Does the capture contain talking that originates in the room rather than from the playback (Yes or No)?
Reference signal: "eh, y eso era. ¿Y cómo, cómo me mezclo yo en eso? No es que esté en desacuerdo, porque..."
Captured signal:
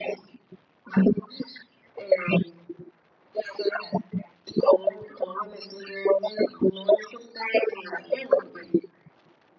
No